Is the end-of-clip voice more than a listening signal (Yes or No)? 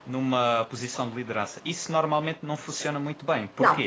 No